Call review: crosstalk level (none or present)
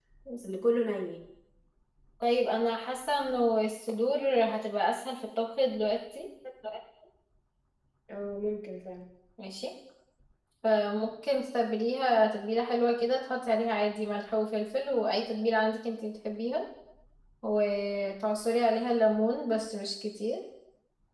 none